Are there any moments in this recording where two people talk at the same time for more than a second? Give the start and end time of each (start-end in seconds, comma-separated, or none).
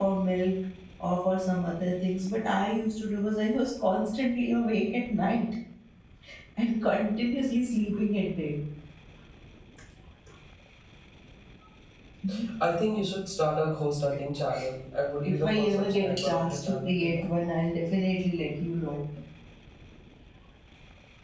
15.2-17.2